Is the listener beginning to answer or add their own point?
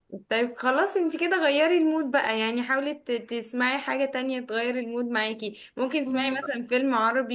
No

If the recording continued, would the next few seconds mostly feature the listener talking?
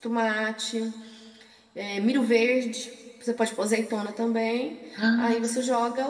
No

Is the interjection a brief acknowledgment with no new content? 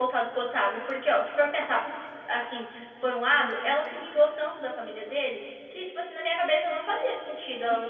No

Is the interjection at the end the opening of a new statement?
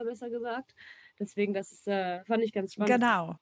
No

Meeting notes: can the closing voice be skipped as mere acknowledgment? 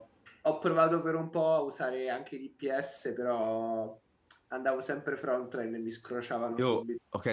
No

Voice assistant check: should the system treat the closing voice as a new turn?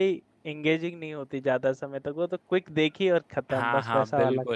Yes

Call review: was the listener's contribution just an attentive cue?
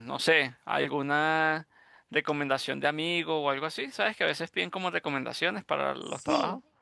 No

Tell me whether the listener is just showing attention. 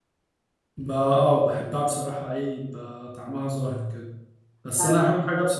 Yes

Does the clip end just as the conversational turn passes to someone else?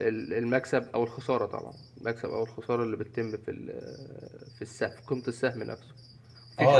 Yes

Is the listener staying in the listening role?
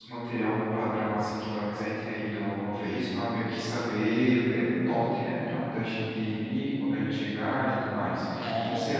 No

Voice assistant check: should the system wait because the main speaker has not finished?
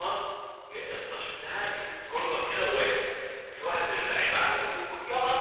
Yes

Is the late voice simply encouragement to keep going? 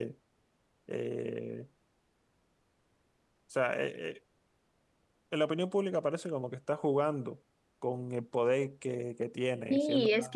No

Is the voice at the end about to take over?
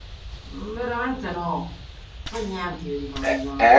Yes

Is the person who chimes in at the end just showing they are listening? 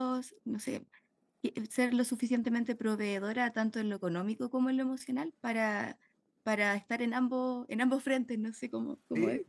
No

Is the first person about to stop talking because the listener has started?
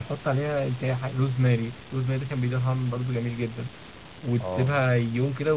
No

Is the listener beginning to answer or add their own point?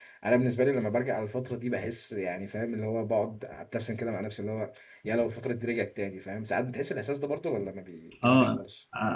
Yes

